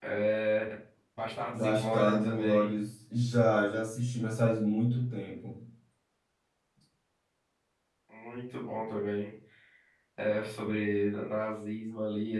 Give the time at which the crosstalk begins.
1.5 s

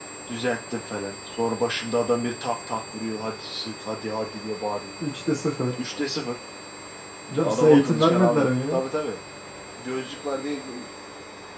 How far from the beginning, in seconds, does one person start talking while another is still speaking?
7.4 s

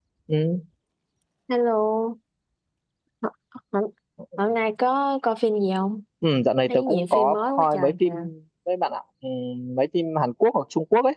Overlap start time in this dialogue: 6.7 s

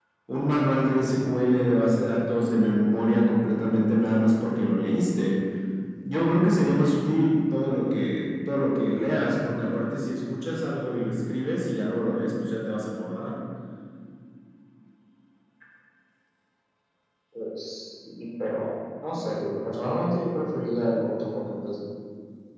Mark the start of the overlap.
none

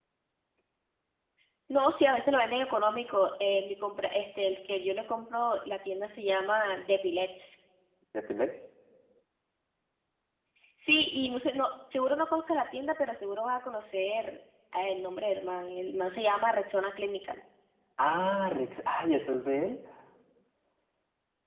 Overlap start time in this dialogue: none

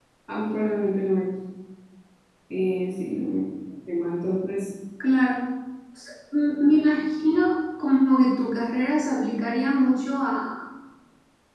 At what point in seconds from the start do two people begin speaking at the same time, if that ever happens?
none

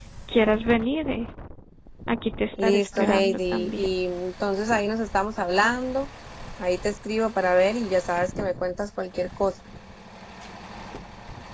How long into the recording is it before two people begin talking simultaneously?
2.6 s

